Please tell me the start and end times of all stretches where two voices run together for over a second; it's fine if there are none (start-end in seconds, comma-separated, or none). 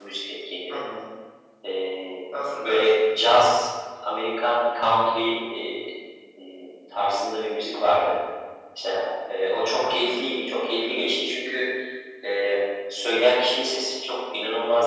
none